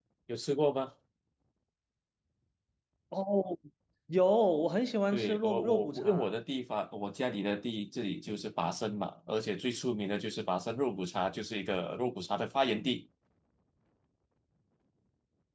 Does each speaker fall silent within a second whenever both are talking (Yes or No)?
No